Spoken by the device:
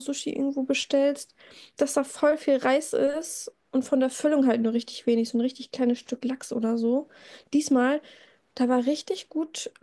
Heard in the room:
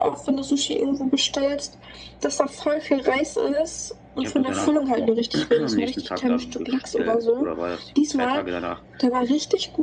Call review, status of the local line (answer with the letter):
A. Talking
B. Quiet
A